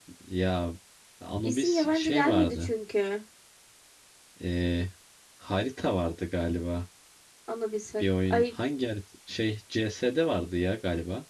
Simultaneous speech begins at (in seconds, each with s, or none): 1.4 s